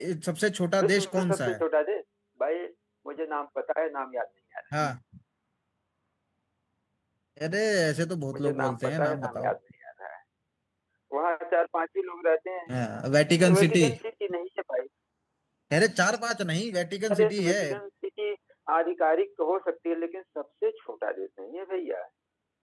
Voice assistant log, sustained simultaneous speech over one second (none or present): present